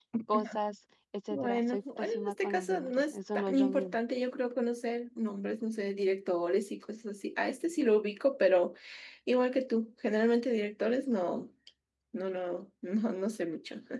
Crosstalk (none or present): present